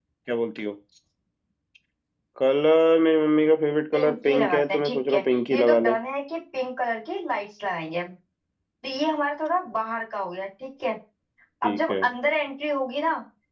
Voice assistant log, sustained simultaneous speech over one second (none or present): present